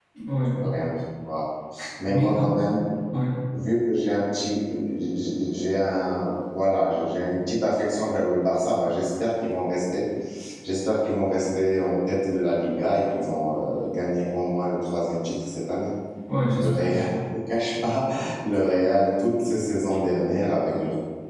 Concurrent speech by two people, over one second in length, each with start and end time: none

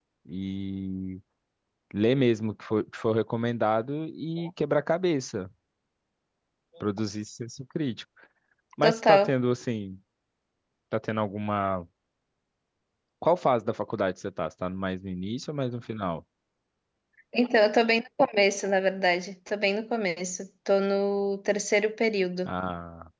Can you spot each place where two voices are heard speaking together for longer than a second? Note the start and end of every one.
none

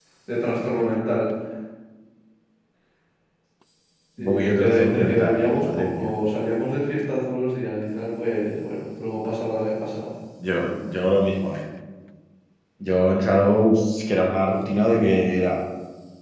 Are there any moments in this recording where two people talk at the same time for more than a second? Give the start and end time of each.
4.2-6.1

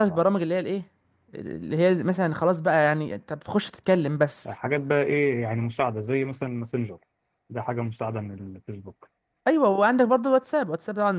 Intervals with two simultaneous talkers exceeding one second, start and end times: none

